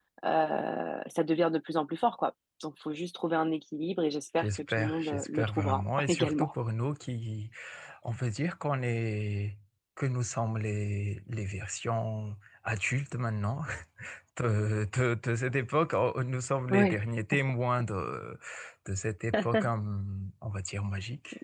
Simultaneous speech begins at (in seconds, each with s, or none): 4.4 s